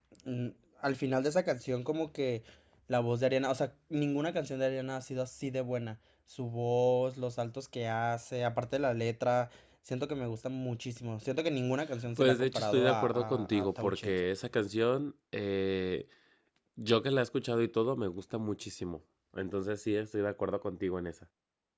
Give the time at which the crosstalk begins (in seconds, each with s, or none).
12.2 s